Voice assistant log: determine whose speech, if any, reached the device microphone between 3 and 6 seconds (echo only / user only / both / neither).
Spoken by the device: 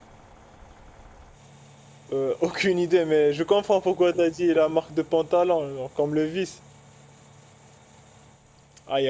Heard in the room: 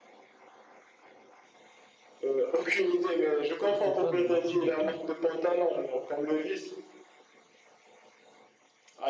both